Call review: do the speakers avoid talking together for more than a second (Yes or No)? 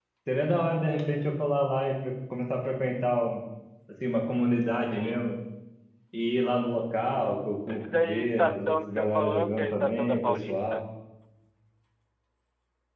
No